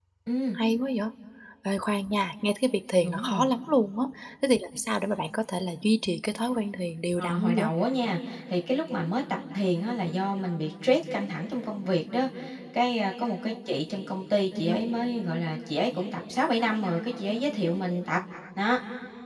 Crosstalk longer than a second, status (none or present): none